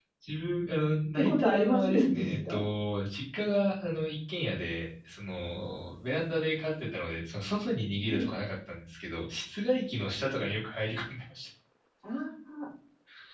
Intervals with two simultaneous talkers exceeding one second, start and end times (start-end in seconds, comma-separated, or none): 1.2-2.6